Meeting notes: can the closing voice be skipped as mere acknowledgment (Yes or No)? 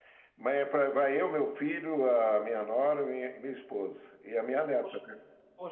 No